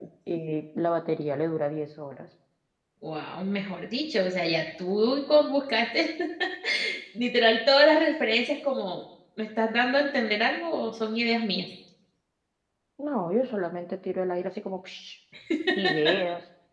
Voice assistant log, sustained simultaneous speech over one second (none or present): none